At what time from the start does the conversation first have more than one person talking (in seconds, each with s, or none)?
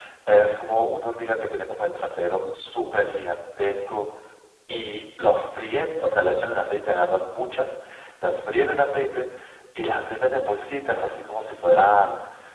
none